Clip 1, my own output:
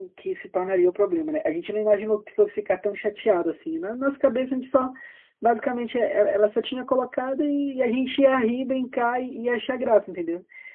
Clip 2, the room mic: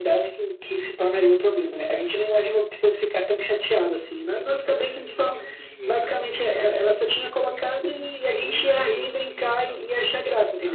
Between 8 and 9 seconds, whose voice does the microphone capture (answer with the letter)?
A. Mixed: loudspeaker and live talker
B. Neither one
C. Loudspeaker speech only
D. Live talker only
A